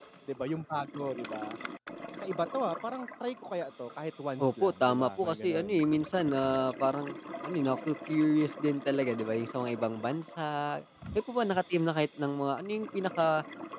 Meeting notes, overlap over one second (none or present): present